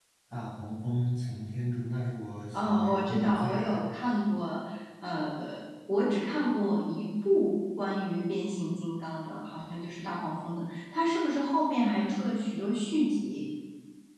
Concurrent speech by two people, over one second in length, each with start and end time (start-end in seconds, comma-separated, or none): 2.5-3.8